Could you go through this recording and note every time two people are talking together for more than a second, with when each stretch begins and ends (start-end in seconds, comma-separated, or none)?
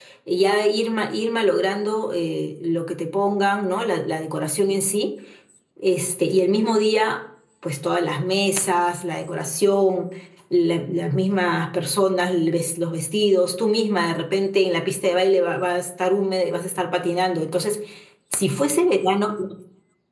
none